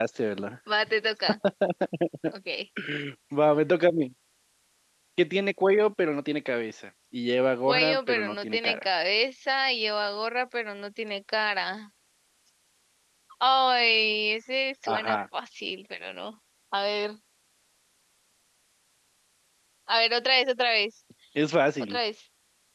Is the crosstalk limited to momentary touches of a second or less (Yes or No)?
No